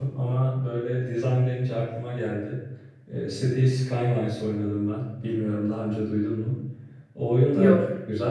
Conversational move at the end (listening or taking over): listening